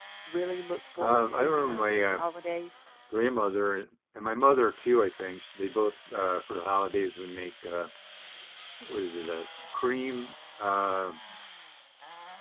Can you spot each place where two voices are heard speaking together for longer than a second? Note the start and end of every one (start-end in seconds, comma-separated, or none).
1.0-2.2